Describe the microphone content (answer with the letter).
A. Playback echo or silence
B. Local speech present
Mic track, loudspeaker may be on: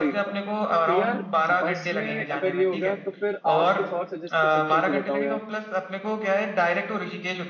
B